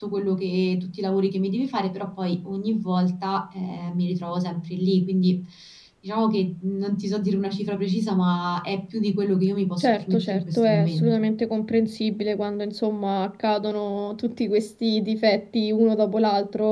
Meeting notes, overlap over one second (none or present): present